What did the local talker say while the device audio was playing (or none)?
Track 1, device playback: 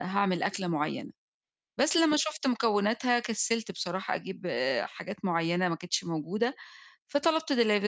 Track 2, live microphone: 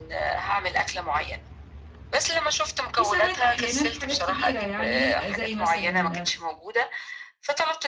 وساعات أحيانًا في حاجات كبيرة يعني زي مثلًا